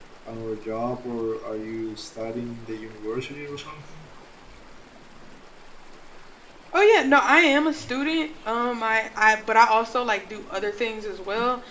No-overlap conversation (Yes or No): Yes